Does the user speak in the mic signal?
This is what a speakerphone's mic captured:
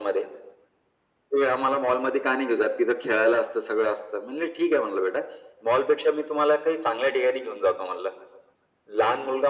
No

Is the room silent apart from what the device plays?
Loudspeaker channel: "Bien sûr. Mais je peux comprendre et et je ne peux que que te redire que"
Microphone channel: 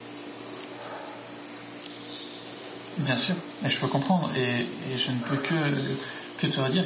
Yes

